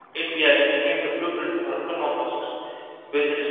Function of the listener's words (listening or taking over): listening